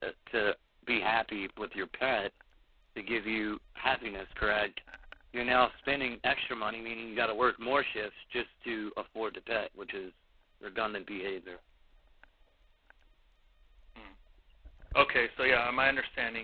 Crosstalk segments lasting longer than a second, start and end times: none

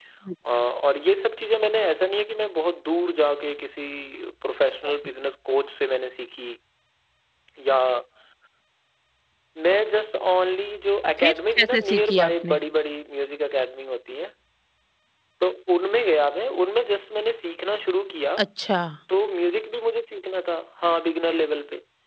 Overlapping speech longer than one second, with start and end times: 11.2-12.6

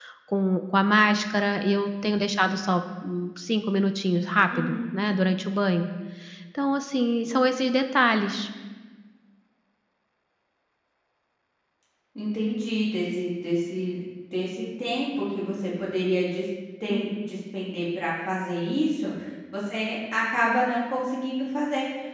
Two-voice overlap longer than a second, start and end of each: none

